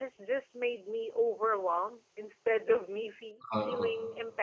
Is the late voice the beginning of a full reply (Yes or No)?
No